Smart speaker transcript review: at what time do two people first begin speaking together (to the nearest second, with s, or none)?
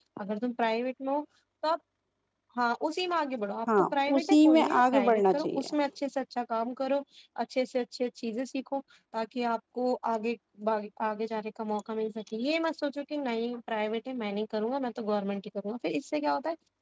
4 s